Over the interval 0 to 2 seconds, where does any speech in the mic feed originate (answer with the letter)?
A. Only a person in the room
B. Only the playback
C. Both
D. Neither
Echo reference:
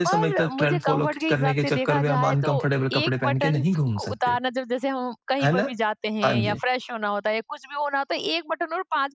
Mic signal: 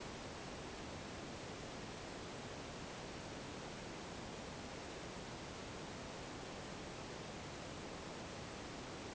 D